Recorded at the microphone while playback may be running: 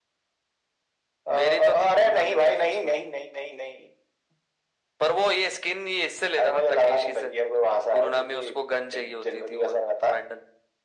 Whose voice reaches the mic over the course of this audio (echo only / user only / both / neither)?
echo only